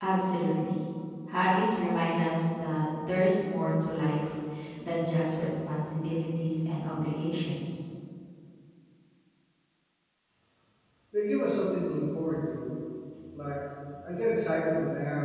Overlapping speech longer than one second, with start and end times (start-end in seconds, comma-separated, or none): none